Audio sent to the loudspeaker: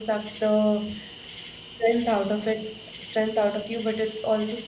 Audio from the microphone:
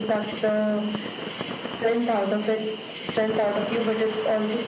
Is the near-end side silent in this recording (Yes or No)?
Yes